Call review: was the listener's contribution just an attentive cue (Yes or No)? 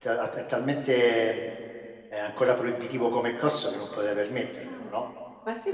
No